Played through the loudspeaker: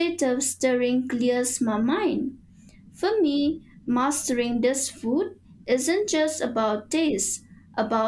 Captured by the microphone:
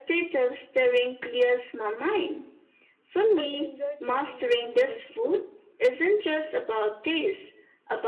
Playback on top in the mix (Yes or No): Yes